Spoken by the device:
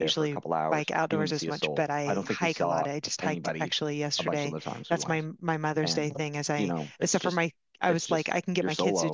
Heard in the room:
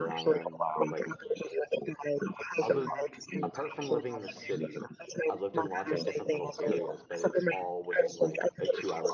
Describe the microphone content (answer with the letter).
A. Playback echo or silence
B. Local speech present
B